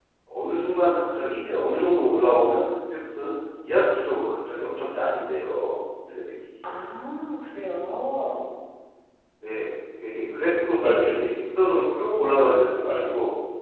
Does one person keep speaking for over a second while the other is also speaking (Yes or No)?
No